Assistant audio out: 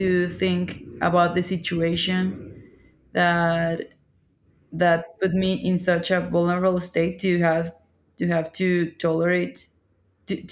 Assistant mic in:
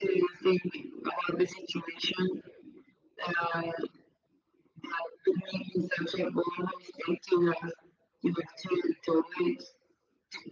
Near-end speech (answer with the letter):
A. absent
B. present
A